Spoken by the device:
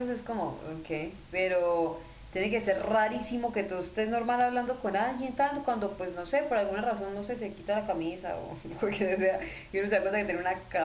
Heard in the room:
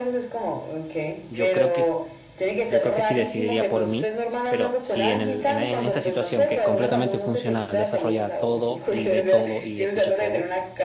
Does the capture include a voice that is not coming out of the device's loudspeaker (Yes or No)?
Yes